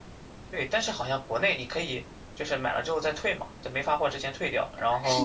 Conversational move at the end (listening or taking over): taking over